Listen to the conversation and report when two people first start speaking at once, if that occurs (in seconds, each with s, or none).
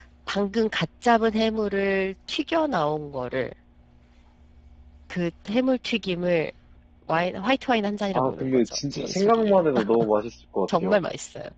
8.2 s